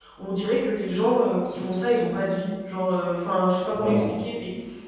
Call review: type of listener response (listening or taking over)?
listening